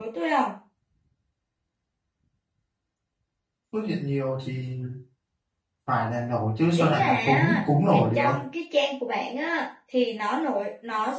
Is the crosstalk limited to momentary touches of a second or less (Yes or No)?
No